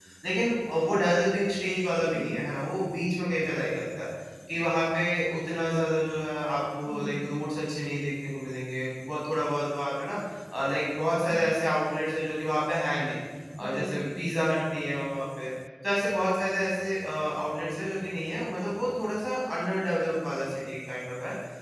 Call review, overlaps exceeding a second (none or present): none